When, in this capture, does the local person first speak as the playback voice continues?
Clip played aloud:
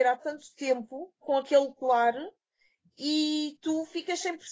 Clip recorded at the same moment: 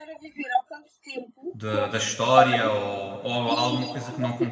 1.5 s

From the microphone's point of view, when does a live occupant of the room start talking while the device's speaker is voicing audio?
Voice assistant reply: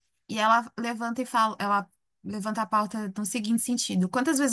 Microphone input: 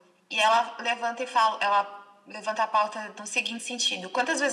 none

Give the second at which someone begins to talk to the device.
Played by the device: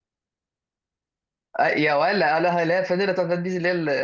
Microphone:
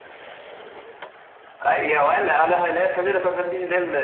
none

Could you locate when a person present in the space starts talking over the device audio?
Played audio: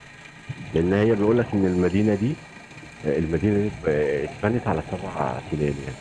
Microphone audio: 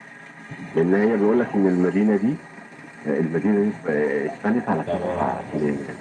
4.8 s

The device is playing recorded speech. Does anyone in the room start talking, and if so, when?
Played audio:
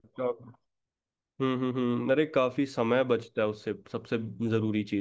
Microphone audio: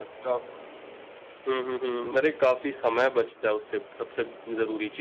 none

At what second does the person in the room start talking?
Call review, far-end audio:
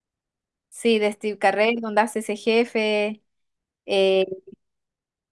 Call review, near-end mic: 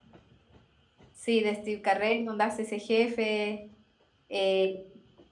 none

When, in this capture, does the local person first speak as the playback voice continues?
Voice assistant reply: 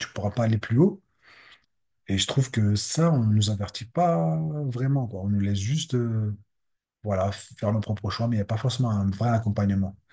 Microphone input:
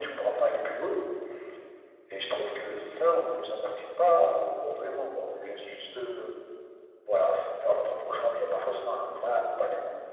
none

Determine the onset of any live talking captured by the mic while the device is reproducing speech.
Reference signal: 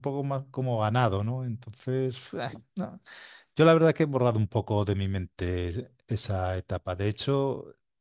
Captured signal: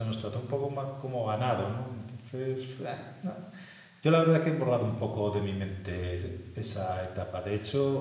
none

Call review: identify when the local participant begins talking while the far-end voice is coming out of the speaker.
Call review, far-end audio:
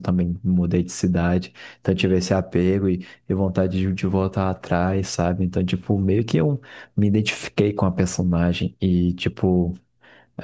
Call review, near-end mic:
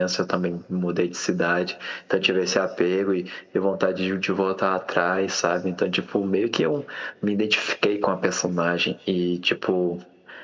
none

